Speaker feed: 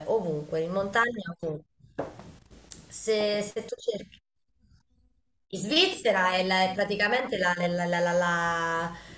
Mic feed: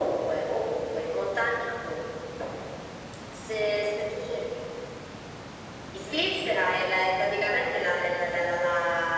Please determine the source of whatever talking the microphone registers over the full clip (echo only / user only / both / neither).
echo only